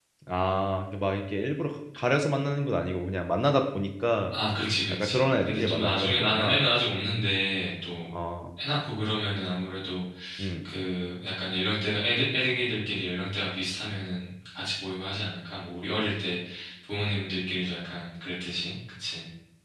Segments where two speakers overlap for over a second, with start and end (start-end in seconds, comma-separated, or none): 4.9-6.6